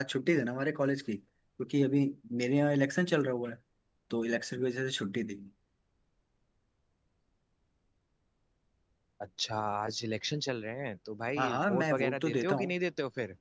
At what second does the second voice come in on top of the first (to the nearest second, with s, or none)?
11 s